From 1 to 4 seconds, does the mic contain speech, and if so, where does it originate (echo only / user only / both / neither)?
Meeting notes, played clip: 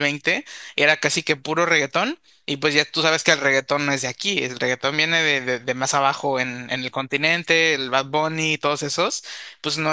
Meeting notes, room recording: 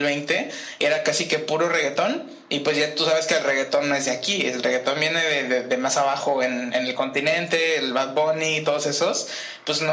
echo only